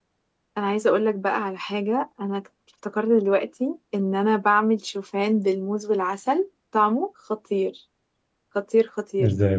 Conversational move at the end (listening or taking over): listening